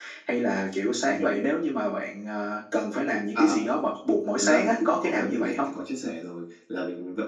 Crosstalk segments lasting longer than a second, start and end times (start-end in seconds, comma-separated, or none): 4.4-5.7